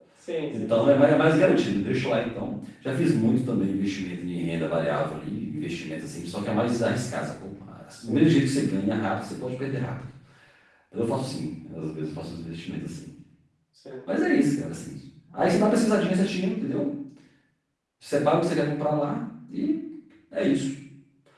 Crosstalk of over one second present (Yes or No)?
No